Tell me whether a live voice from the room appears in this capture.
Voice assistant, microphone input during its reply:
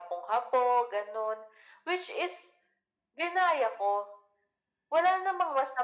No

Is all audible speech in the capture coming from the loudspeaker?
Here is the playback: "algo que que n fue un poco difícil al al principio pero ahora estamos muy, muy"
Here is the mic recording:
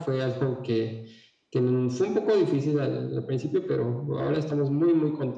Yes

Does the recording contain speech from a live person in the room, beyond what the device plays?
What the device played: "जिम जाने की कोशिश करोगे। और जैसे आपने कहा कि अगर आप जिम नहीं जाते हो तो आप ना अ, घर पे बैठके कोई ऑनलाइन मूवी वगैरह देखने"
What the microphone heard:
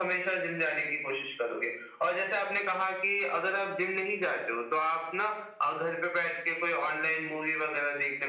No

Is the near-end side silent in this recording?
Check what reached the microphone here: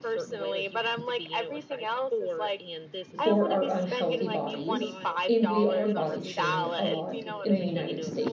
No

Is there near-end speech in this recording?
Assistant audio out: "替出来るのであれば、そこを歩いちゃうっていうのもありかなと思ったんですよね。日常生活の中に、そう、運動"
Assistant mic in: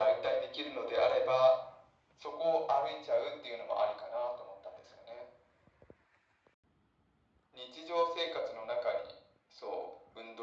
No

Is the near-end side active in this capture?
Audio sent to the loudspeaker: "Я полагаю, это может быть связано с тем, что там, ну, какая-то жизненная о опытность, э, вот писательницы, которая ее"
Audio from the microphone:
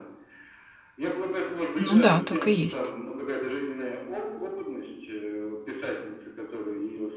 Yes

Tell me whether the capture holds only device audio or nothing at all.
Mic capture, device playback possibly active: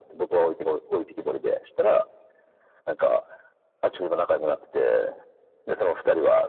Yes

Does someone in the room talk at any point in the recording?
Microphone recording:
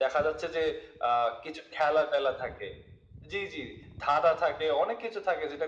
No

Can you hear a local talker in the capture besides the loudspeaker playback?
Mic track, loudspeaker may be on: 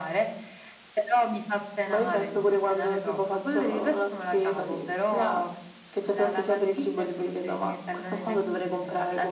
No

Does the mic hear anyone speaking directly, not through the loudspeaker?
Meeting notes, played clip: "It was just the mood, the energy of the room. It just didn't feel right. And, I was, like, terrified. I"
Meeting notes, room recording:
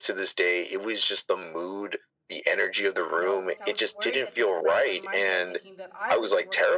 Yes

